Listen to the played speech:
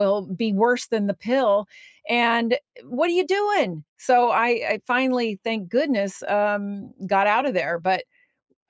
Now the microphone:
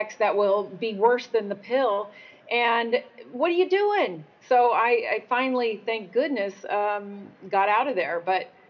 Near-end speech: none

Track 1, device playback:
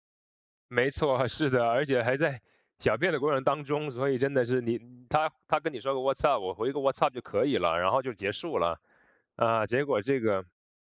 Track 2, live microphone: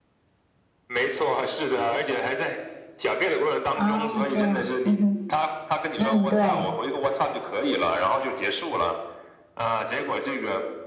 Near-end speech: present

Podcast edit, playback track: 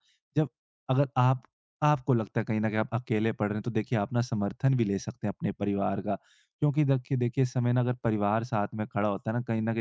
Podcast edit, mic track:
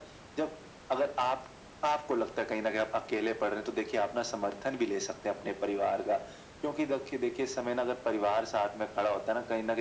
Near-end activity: none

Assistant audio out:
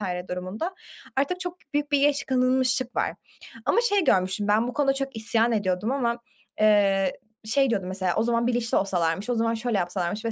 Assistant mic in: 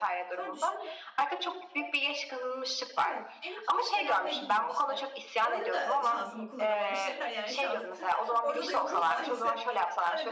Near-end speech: present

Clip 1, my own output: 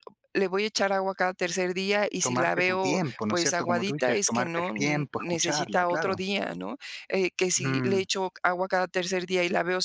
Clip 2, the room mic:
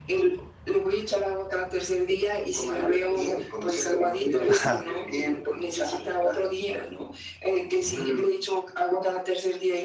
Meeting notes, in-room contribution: present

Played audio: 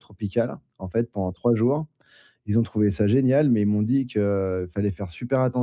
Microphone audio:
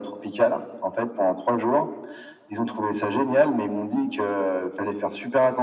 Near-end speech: none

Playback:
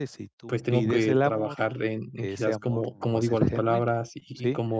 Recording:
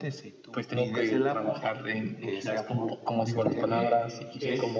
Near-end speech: present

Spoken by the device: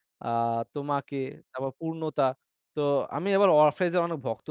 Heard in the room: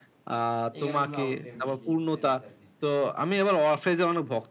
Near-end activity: present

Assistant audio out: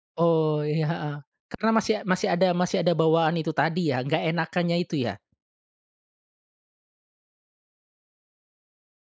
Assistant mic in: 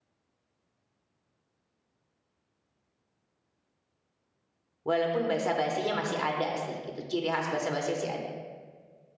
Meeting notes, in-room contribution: present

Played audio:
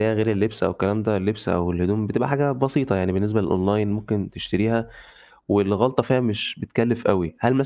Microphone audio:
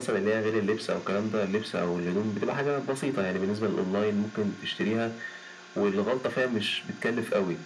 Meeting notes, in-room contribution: none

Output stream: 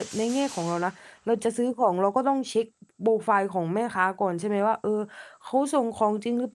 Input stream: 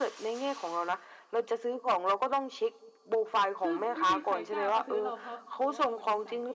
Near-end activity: present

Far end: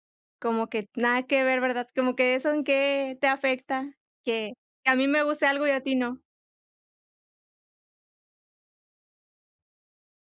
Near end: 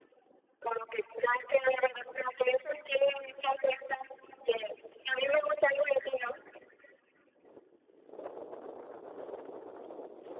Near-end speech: none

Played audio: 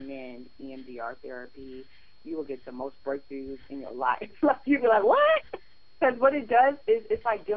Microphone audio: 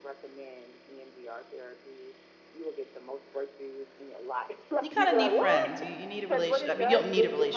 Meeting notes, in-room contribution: present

